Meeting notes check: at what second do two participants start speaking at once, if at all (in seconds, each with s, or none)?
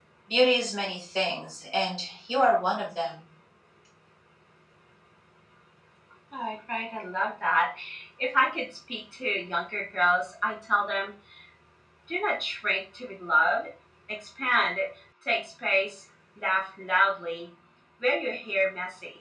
none